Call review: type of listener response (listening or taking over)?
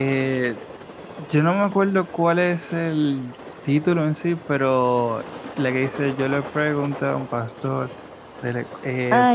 taking over